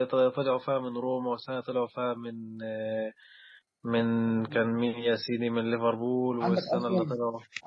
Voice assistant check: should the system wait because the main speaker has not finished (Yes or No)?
No